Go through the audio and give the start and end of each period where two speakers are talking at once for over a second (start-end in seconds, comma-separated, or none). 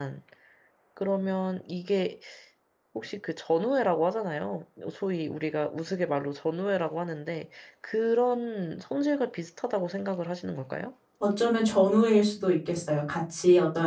none